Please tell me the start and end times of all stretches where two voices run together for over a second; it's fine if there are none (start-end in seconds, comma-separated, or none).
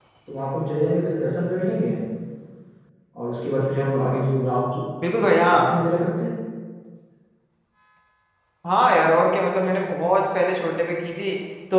none